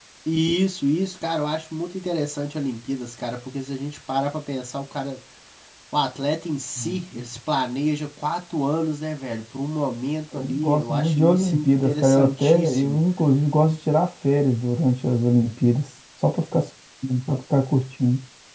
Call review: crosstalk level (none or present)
present